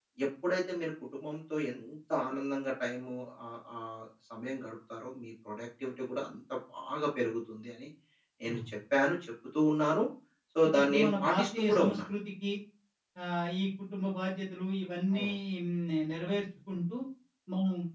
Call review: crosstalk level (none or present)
present